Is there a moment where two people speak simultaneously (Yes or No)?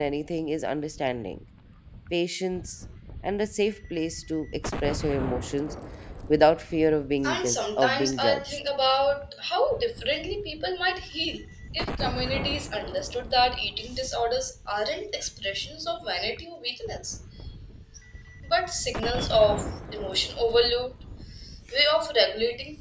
Yes